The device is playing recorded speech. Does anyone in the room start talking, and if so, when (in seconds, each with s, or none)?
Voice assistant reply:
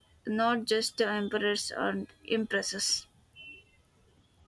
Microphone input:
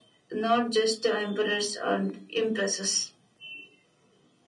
none